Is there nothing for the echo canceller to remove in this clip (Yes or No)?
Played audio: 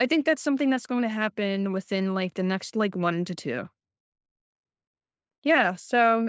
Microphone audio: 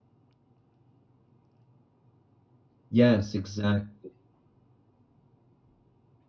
Yes